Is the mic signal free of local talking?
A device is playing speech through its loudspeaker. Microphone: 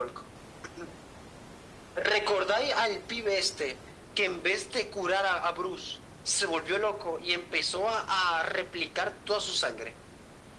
Yes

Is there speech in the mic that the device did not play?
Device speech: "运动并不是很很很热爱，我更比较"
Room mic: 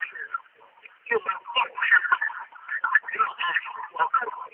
No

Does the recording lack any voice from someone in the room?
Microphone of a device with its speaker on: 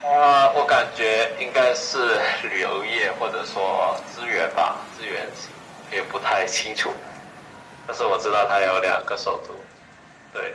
Yes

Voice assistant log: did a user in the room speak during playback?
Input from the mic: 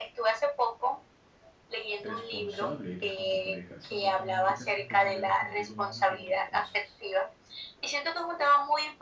Yes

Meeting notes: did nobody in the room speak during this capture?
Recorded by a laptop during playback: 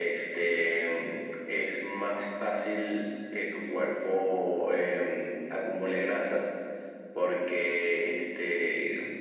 Yes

